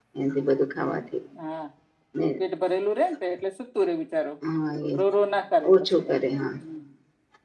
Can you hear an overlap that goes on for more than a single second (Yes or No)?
No